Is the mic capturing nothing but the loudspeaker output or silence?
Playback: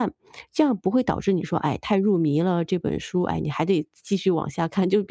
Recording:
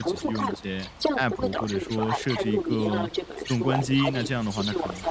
No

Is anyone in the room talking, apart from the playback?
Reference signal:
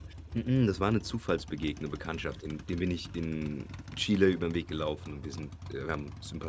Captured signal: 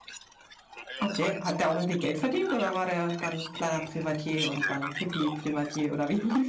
Yes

